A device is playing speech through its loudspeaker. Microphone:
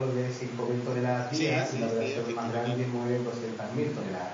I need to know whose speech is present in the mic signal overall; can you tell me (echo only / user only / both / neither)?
both